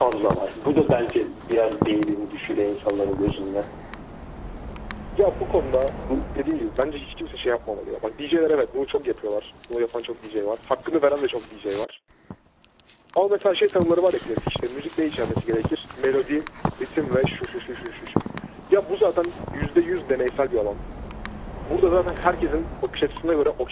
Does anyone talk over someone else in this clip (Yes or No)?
No